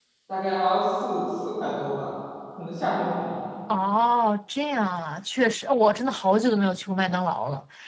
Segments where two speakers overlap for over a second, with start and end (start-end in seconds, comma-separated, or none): none